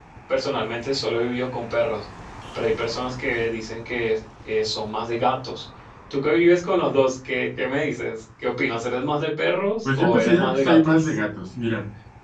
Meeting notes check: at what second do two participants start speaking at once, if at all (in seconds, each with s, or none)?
9.8 s